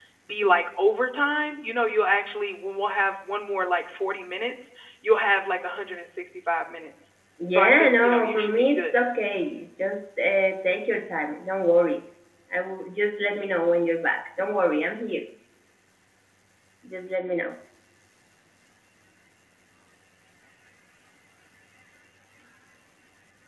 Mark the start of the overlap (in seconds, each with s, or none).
7.4 s